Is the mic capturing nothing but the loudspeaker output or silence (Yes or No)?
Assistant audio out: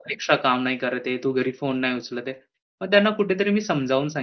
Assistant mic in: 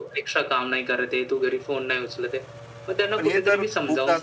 No